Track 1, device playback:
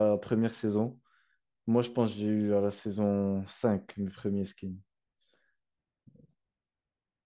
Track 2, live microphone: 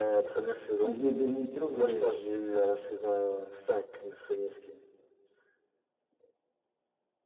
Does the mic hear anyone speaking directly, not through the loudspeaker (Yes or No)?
Yes